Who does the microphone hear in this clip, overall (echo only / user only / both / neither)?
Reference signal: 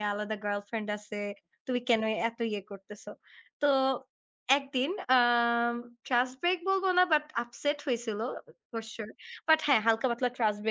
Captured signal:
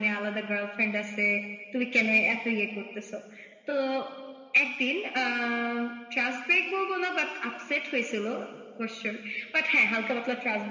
echo only